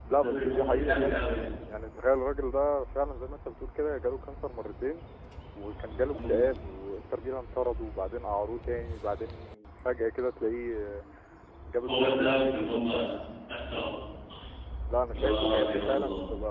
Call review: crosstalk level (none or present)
present